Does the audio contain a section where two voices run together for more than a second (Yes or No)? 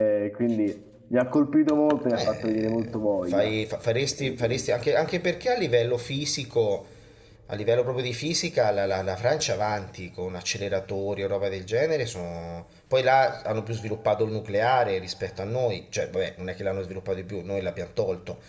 Yes